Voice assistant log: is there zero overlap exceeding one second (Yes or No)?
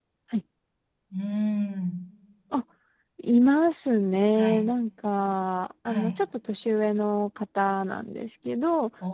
Yes